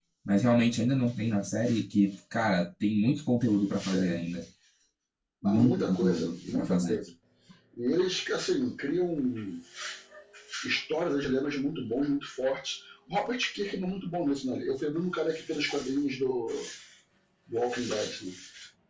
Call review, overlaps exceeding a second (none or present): present